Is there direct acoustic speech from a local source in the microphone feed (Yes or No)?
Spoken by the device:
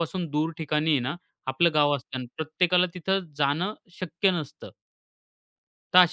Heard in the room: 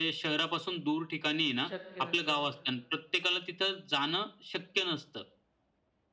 Yes